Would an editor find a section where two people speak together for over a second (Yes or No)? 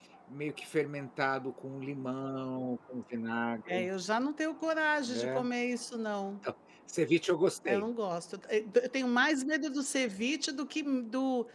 No